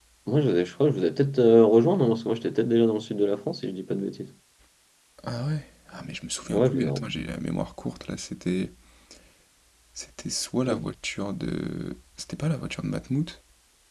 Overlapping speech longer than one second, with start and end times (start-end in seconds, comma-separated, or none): none